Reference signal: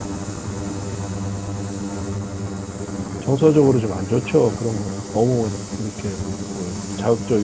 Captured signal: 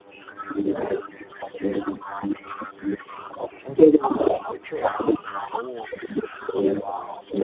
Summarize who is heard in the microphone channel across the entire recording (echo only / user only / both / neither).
echo only